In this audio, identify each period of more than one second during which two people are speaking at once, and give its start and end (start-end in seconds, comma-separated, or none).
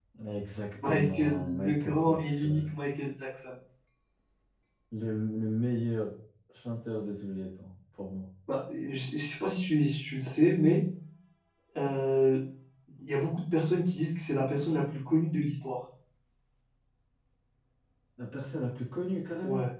0.8-2.7